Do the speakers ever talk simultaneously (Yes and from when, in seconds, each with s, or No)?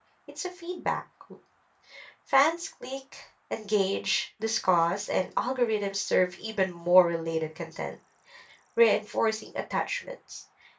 No